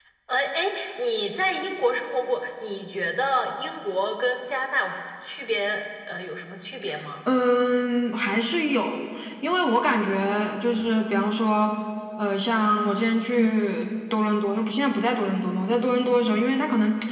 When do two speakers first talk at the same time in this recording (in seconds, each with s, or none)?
none